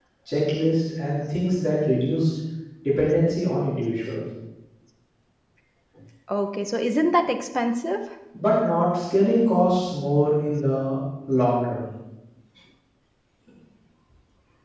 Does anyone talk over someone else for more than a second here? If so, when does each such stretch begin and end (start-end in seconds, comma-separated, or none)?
none